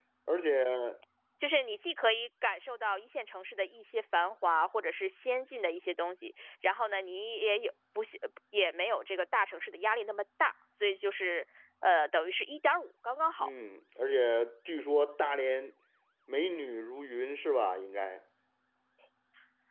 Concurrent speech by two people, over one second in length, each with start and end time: none

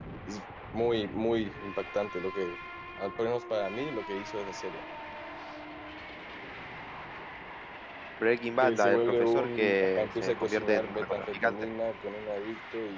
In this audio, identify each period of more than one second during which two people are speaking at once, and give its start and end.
8.6-11.7

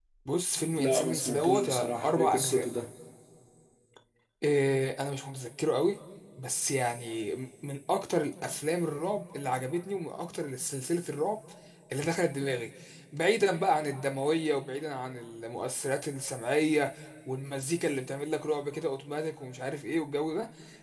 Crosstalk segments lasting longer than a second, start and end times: 0.7-2.7

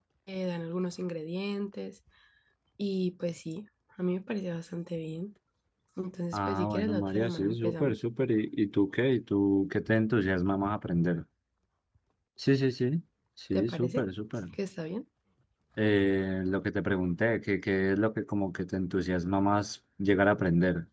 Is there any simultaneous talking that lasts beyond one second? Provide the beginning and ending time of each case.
6.3-8.0

